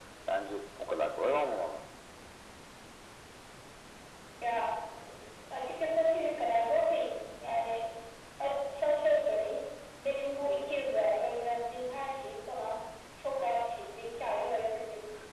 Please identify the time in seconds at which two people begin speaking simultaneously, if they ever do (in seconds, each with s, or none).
none